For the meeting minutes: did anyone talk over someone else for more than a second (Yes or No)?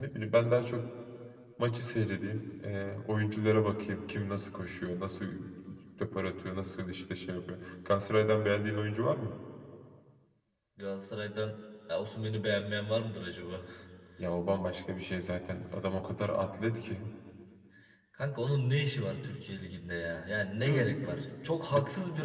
No